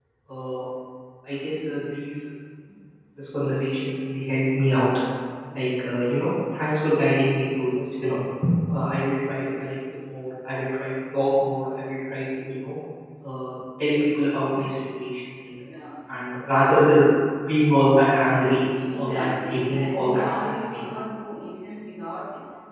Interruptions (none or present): present